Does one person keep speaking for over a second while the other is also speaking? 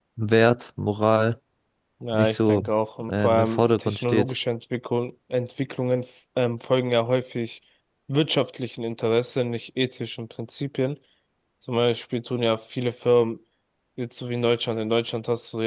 Yes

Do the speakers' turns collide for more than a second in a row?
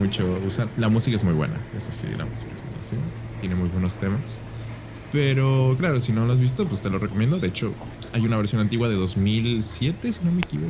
No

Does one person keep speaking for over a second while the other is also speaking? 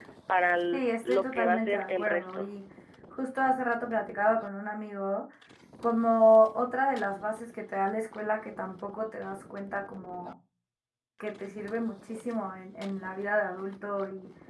Yes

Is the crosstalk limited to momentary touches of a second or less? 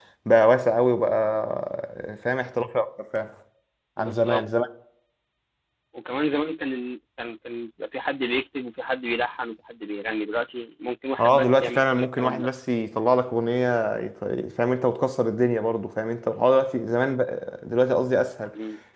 No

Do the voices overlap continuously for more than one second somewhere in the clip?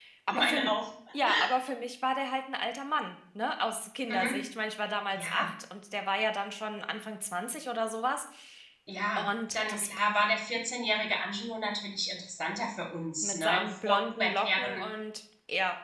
Yes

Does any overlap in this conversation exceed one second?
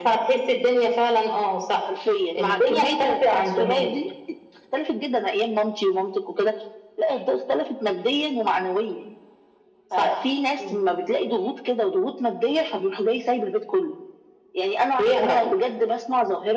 Yes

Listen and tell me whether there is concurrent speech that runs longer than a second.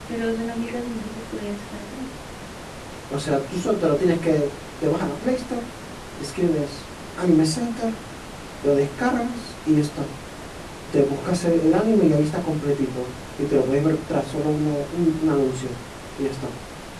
No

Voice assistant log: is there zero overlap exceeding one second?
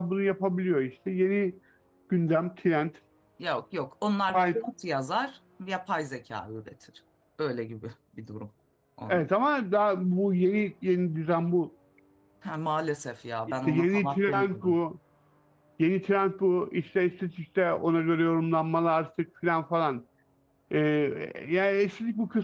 No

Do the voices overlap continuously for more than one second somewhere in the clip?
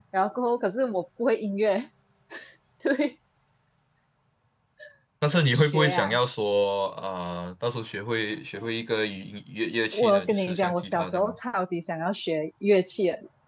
Yes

